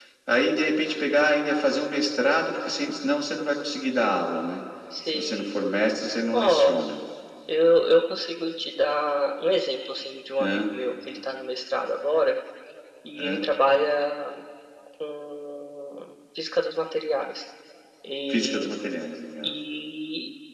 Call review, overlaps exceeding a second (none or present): none